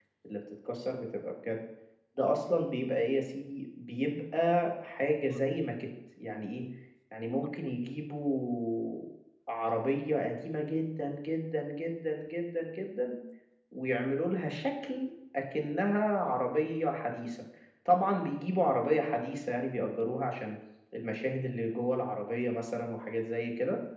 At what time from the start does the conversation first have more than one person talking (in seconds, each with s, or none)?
none